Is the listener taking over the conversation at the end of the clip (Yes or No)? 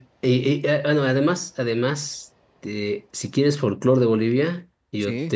No